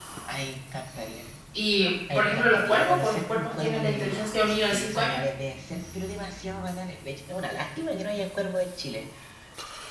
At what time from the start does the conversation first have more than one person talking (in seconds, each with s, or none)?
2.1 s